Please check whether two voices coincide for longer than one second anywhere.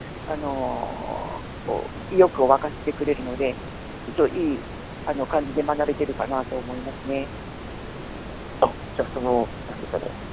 No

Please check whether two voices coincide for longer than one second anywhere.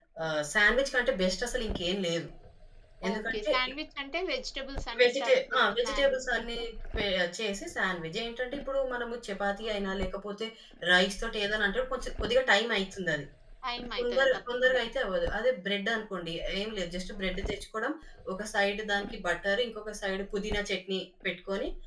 Yes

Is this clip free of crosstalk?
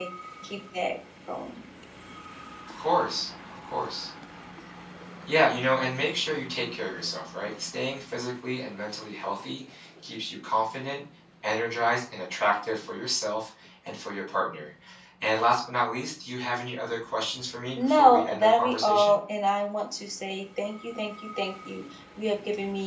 No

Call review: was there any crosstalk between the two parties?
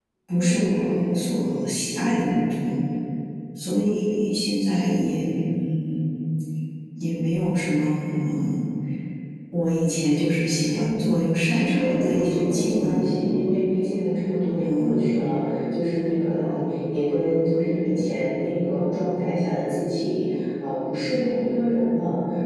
Yes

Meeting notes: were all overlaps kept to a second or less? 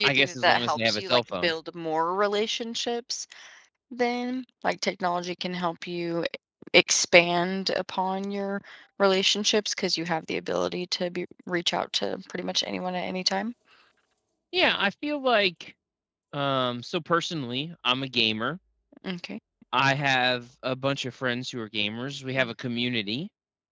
No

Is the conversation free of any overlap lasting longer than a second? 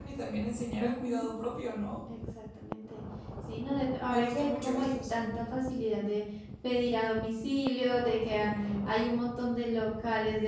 No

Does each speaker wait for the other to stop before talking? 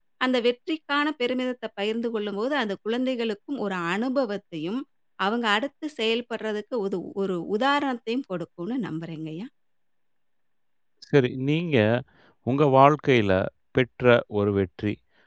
Yes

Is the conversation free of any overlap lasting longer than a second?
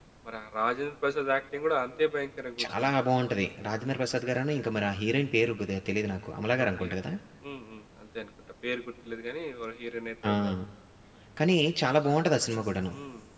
Yes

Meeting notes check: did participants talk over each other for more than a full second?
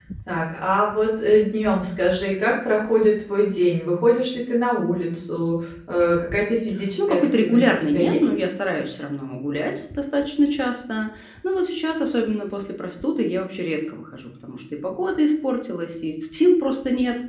Yes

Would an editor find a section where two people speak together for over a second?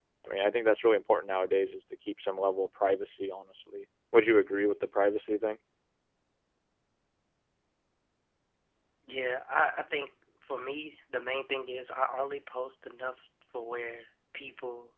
No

